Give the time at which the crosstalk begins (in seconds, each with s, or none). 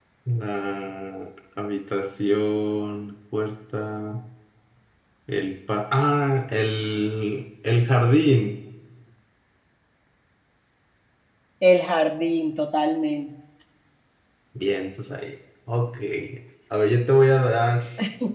none